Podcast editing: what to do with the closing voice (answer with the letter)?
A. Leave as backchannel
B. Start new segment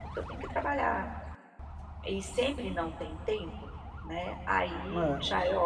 A